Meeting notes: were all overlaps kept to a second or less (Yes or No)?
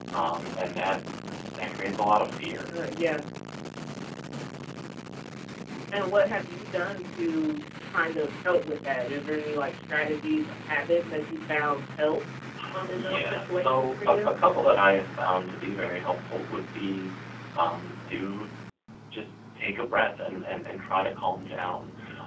No